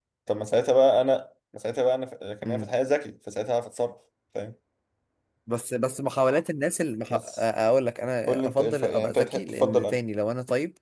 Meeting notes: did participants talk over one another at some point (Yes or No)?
Yes